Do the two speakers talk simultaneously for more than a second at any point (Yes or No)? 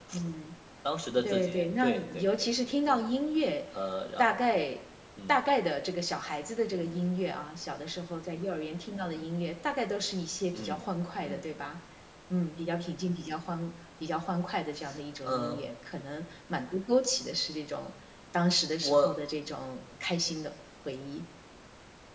Yes